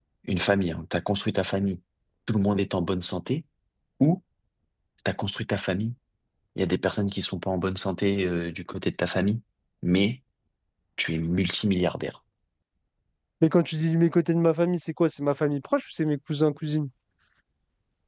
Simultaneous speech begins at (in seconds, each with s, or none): none